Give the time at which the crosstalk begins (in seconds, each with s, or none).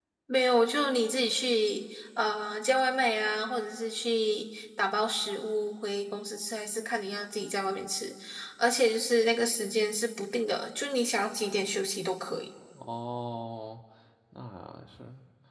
none